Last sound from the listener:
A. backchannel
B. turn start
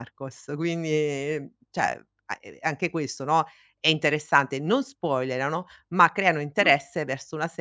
A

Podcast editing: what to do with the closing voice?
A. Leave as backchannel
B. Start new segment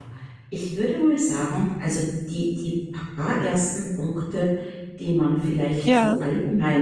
A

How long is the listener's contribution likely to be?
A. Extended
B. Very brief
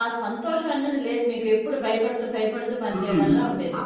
A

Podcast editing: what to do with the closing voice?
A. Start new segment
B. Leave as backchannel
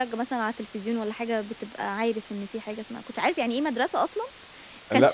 A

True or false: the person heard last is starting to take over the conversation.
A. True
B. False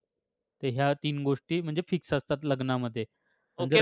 A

